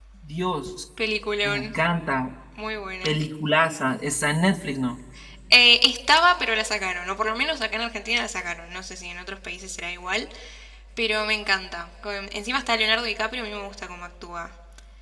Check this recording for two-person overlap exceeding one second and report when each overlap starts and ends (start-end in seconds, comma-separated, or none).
none